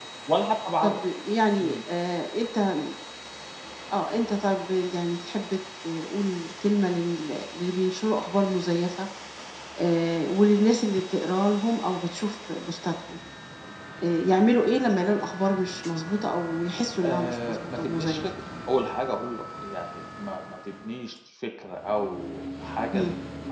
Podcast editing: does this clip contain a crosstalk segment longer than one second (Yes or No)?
Yes